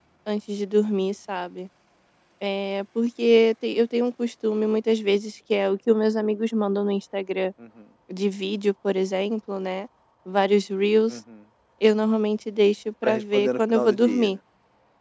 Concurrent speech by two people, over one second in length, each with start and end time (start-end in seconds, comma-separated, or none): 13.0-14.3